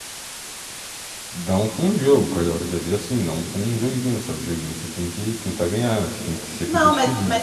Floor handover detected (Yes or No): Yes